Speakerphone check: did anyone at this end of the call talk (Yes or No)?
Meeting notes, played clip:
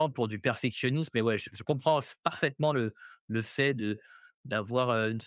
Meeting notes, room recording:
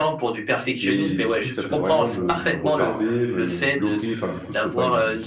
Yes